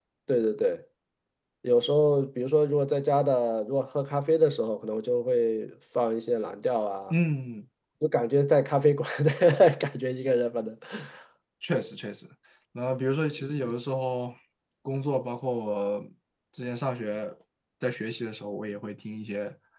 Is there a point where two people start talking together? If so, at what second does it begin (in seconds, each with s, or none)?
none